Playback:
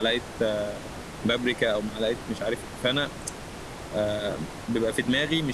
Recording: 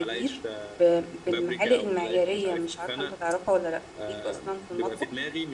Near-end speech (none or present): present